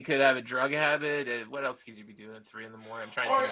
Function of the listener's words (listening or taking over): taking over